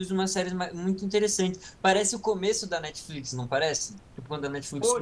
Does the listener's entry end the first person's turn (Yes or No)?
Yes